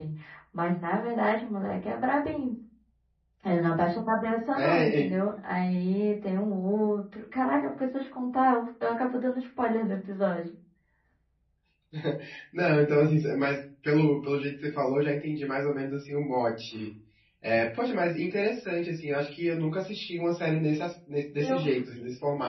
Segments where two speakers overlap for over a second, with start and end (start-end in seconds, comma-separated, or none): none